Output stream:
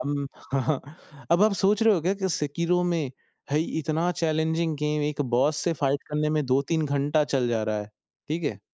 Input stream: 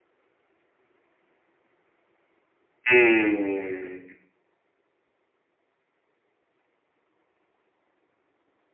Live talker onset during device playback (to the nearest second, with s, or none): 3 s